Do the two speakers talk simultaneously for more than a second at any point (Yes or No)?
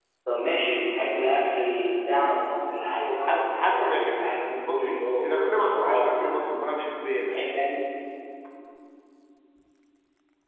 Yes